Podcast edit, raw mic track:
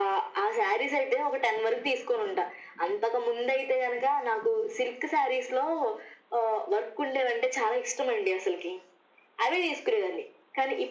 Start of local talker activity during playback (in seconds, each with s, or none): none